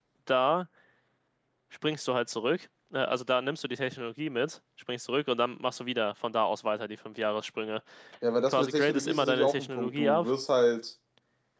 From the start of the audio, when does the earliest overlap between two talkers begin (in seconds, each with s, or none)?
8.5 s